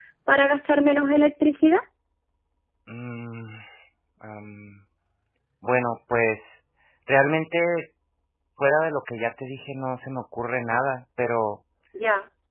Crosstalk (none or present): none